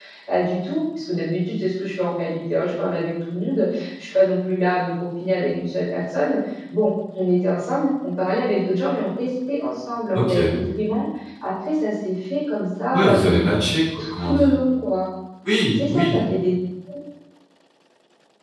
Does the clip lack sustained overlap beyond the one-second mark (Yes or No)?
Yes